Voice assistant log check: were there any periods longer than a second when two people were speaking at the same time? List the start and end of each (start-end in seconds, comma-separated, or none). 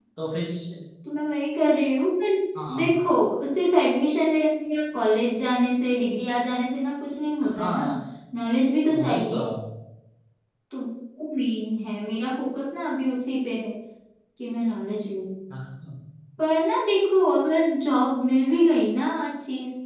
none